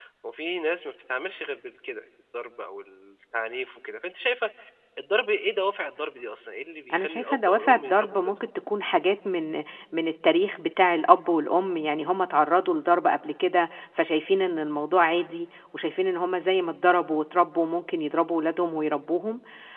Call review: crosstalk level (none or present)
present